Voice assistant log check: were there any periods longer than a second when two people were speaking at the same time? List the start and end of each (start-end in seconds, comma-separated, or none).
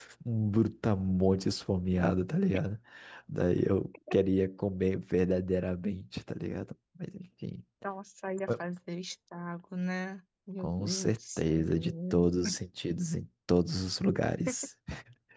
10.6-12.3